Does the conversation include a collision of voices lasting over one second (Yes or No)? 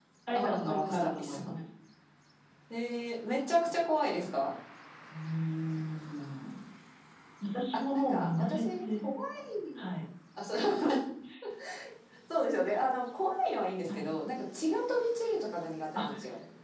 Yes